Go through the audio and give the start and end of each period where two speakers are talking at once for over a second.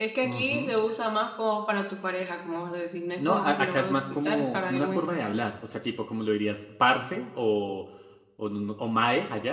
3.2-5.4

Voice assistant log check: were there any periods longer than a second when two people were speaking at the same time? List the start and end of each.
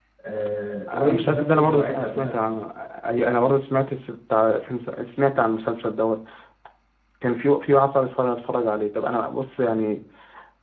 0.9-2.5

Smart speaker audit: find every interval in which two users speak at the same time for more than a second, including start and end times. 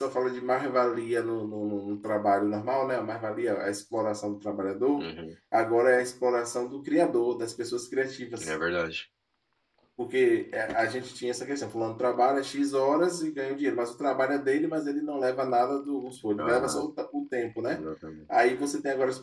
none

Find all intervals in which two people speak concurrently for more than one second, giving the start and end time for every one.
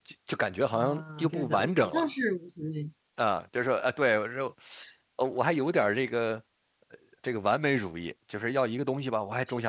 0.7-2.1

